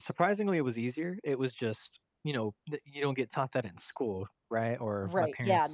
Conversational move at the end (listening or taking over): taking over